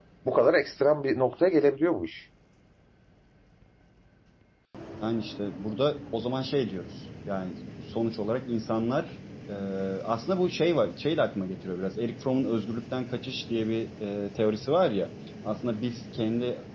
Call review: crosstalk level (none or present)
none